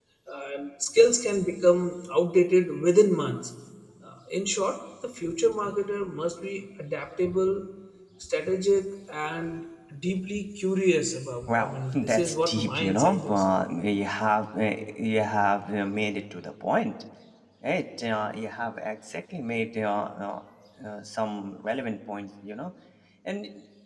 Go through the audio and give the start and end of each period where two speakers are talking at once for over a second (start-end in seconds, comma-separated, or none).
11.5-13.4